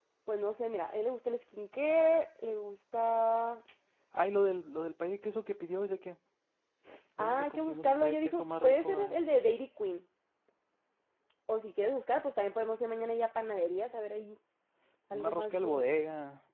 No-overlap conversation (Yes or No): No